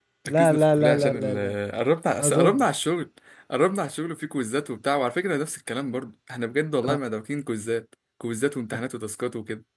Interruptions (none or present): present